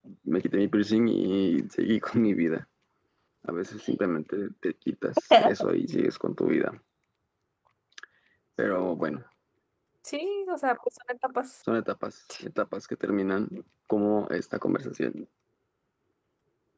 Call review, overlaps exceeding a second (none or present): none